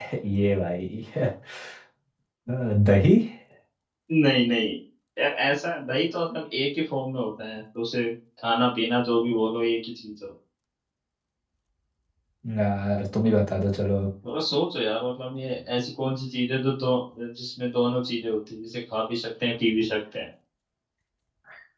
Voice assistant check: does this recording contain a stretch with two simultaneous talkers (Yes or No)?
No